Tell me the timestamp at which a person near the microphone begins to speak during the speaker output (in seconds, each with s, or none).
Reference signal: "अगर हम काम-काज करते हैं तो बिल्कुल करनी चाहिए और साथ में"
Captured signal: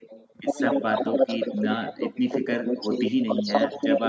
0.4 s